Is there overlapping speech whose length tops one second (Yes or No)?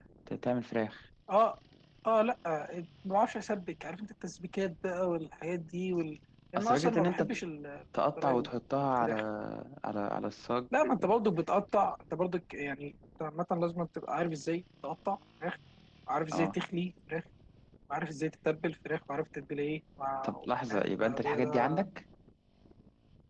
Yes